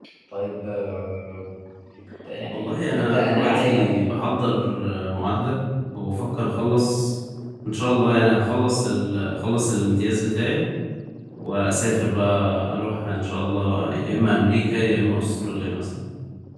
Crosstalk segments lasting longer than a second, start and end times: 2.5-4.0

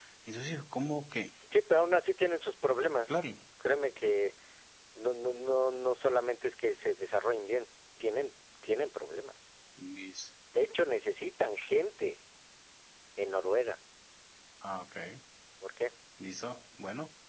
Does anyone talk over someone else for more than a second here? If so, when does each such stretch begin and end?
none

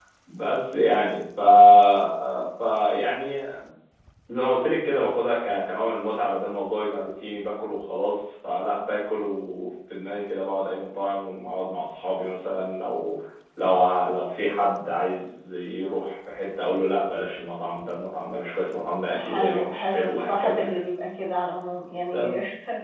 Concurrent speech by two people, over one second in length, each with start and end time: 19.2-20.8

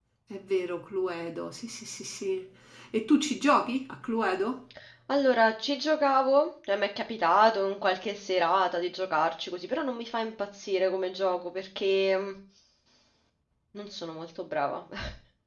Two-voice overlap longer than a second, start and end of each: none

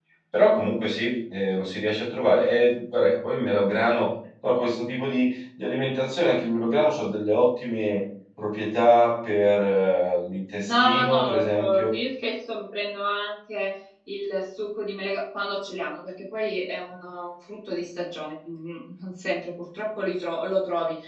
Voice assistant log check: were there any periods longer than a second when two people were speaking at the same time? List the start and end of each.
10.6-11.9

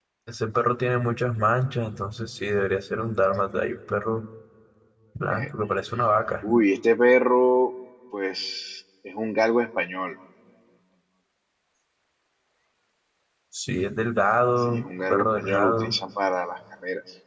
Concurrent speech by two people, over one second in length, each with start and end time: 14.6-16.0

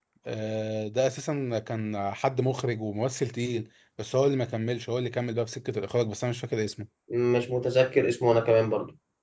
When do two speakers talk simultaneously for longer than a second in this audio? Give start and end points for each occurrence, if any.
none

